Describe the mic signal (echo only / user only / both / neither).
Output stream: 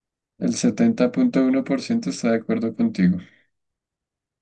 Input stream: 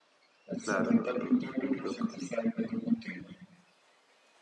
both